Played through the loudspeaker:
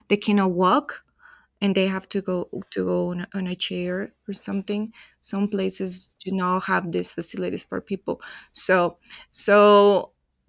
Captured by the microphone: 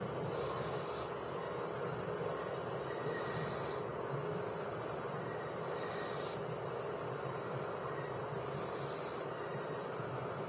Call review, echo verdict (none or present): none